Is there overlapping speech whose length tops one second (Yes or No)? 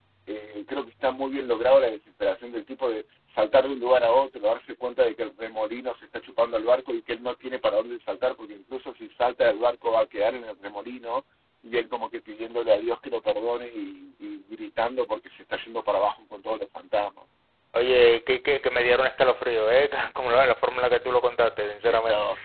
No